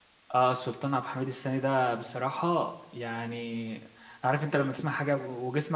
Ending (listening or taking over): listening